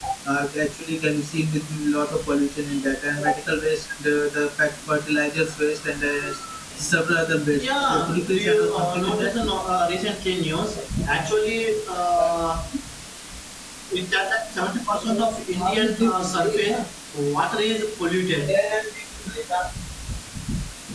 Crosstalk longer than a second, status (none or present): present